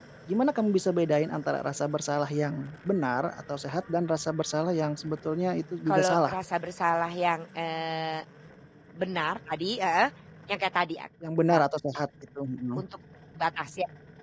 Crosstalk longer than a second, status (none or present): none